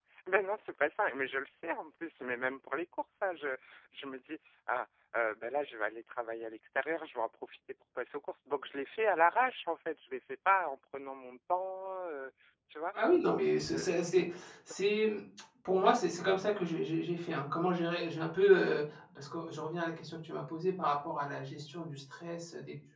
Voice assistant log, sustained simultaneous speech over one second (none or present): none